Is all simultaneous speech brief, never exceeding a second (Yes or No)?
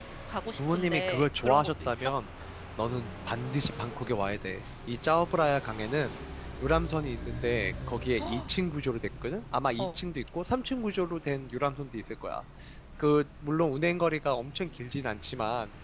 No